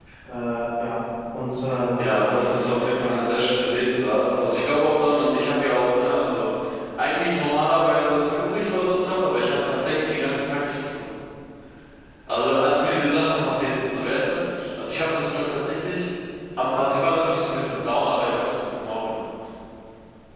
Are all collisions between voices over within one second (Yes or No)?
No